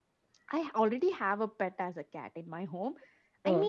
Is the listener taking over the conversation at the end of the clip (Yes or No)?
No